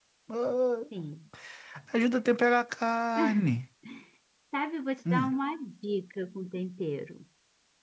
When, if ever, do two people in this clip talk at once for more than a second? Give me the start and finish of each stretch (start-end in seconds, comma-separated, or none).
none